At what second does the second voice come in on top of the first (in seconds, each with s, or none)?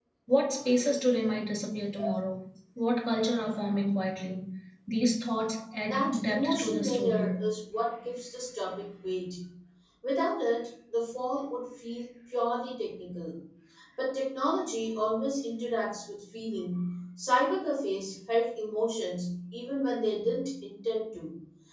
5.9 s